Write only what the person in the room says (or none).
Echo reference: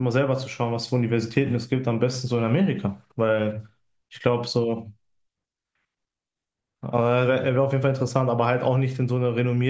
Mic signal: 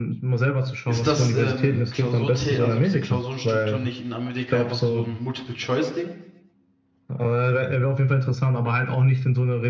ist das ähm, Klausur, also diese Klausurenstruktur nicht in Amerika einfach so ein Multiple-Choice-Ding?